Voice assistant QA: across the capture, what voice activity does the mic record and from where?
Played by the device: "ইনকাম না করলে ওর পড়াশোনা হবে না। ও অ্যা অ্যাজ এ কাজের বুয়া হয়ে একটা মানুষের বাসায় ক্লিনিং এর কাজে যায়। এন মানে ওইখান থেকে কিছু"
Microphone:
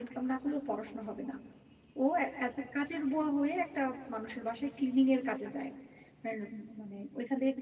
echo only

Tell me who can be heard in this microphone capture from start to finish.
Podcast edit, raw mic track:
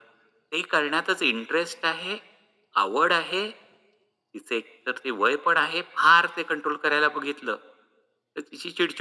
echo only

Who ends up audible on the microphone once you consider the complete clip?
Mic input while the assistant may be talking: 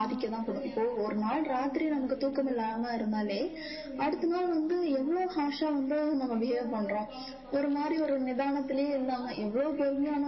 both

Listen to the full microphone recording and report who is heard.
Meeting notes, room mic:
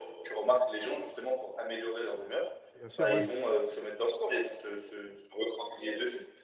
both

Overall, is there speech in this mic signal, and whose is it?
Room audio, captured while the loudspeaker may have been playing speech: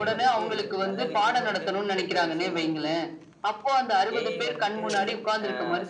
both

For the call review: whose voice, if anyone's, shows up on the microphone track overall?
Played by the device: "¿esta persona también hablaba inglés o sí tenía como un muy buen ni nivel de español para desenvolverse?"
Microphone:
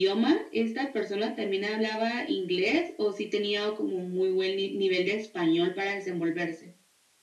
echo only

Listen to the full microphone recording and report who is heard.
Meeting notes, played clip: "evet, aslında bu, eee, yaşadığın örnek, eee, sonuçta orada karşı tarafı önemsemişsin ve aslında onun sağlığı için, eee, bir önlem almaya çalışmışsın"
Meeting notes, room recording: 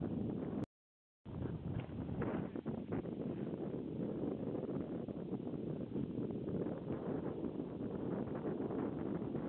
neither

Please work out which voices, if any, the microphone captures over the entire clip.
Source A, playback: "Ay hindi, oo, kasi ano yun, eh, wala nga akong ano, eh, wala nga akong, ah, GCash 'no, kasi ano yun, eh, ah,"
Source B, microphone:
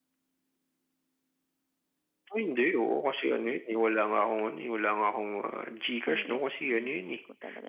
both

